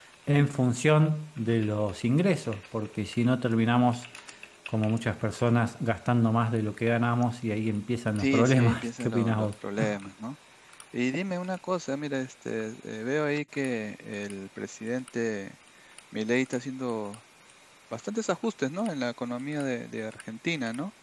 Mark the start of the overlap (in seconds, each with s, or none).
8.2 s